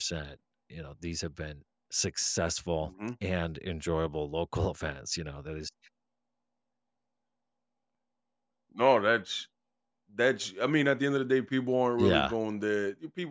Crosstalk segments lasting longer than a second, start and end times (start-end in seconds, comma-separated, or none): none